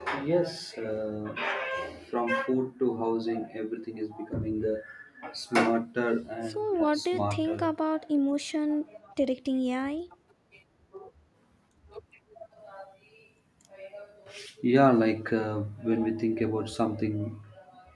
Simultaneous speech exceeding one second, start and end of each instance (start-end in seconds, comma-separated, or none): 6.5-7.7